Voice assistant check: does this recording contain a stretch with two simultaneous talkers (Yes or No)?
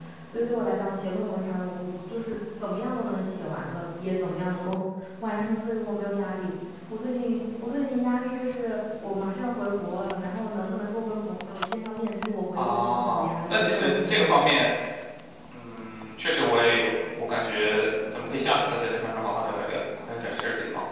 Yes